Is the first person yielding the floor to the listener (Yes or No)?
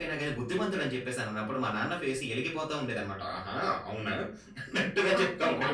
Yes